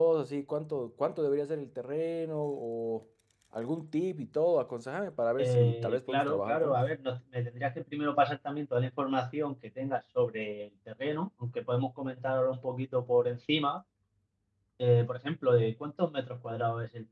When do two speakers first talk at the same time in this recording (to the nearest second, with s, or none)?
5 s